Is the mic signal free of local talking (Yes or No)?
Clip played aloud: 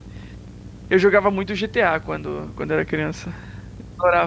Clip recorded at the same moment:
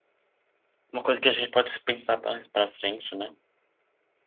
No